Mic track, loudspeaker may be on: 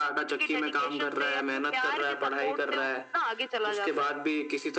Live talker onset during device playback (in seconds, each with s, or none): none